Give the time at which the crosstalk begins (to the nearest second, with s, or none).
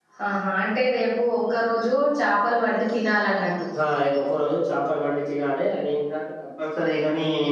none